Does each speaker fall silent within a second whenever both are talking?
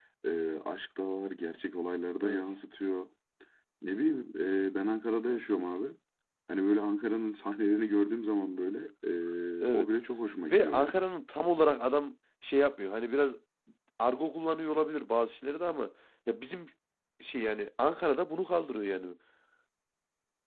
Yes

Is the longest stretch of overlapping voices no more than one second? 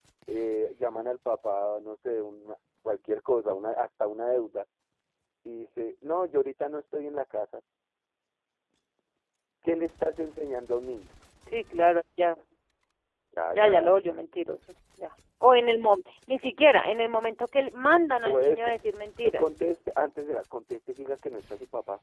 Yes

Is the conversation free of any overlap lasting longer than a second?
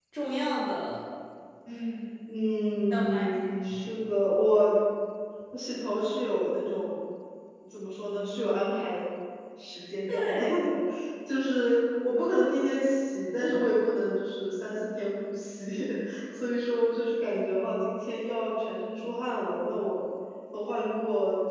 Yes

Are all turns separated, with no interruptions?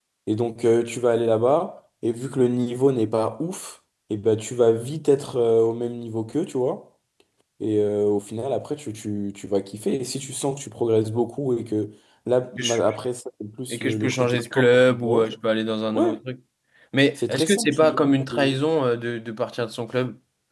No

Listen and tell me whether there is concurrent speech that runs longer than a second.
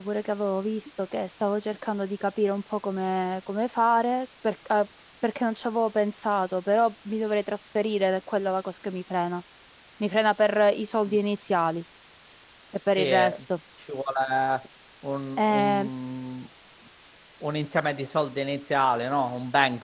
No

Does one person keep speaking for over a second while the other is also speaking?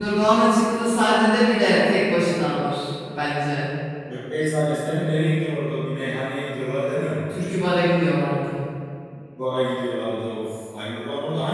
No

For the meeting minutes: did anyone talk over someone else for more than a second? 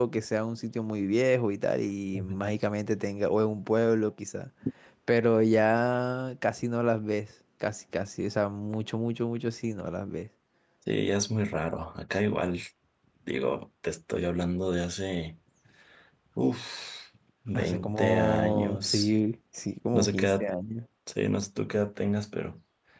Yes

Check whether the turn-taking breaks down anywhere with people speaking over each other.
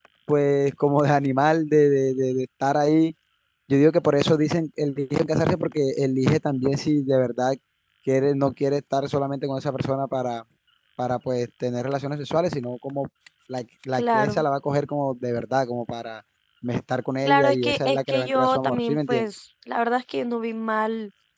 Yes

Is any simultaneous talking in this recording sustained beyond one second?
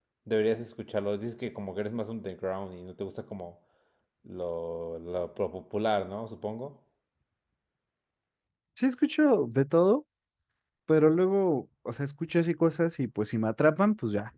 No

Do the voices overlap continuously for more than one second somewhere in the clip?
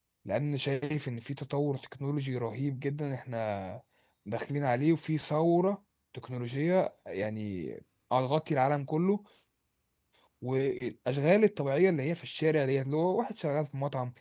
No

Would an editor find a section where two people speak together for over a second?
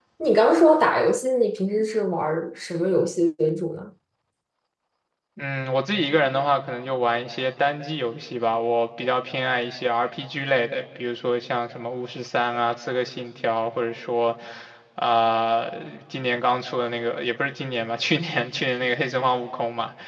No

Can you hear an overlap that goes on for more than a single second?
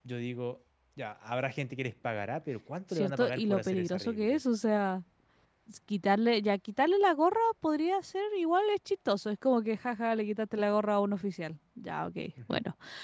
Yes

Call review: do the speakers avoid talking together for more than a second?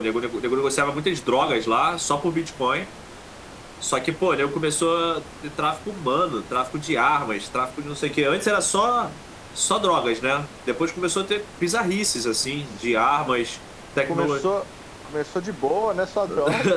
Yes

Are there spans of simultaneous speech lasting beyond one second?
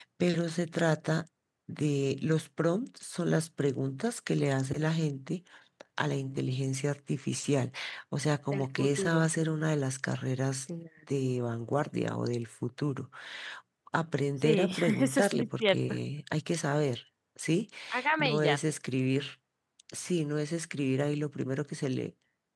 Yes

